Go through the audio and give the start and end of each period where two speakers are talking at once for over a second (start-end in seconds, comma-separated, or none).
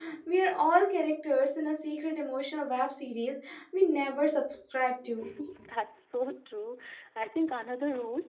none